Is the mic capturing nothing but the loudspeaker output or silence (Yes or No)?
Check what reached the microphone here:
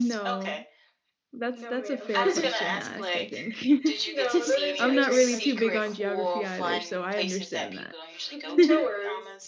No